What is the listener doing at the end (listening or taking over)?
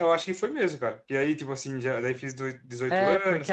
taking over